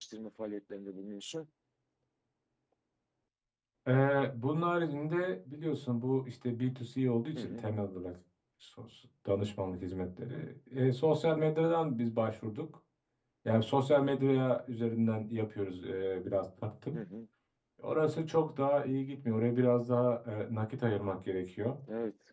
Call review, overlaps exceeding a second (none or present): none